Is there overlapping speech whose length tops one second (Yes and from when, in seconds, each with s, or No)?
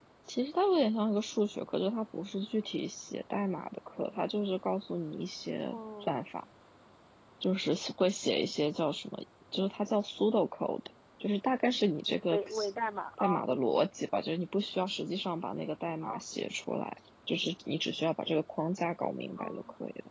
No